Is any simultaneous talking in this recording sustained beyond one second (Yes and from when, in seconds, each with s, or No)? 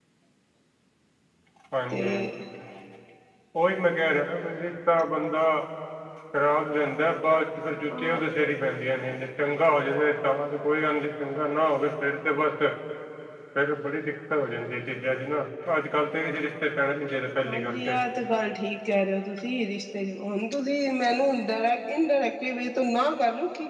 No